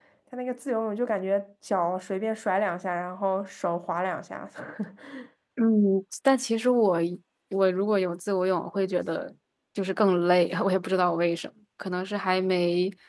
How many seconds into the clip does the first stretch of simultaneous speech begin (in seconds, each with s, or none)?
none